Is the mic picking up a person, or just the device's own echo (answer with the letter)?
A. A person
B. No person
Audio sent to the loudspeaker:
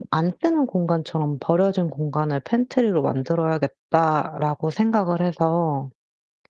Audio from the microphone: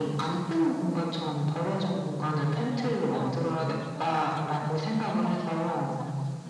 A